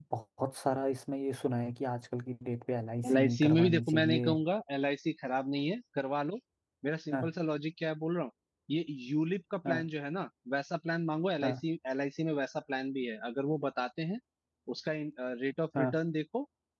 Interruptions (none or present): present